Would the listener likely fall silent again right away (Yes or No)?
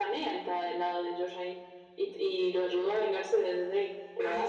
No